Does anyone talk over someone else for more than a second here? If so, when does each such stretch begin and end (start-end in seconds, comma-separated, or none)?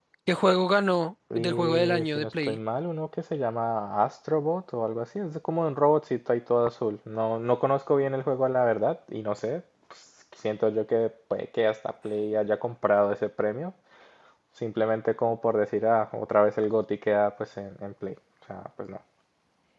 1.4-2.6